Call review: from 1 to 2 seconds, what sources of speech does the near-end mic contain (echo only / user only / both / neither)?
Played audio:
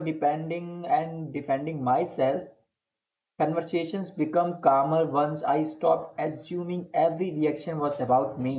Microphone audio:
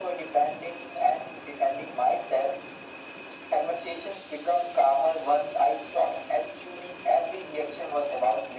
echo only